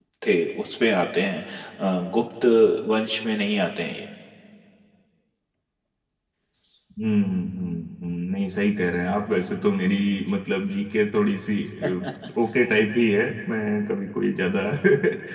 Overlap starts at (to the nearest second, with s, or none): none